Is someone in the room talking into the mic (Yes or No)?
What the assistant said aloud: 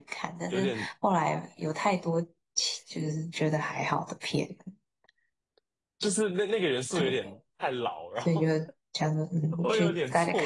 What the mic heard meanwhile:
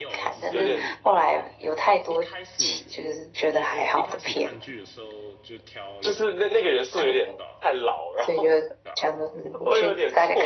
Yes